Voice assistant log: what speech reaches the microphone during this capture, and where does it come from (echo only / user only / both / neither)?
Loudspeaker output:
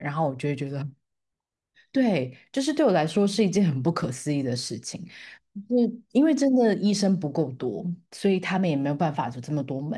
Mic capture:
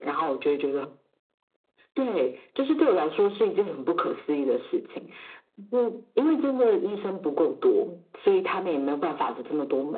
echo only